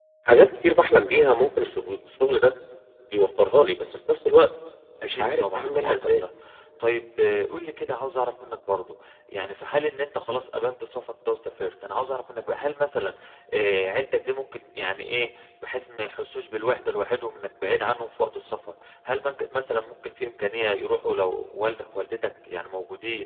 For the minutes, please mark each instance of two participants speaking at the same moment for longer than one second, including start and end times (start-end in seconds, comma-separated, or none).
5.0-6.2